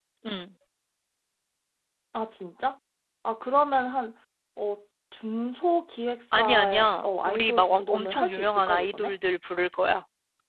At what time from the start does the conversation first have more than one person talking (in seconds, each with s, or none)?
6.3 s